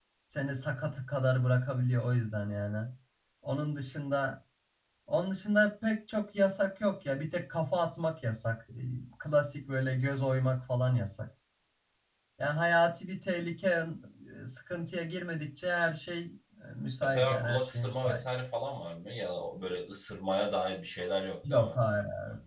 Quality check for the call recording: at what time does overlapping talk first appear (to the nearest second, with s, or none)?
17 s